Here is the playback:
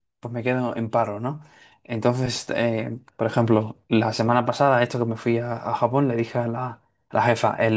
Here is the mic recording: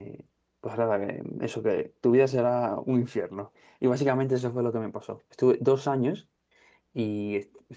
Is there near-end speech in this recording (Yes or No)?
Yes